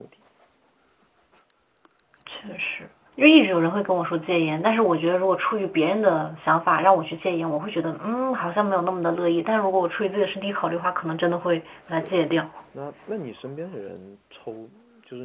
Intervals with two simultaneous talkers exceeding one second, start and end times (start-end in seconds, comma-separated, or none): none